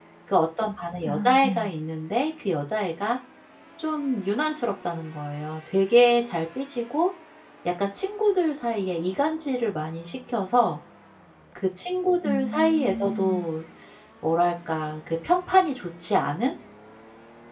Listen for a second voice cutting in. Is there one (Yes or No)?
Yes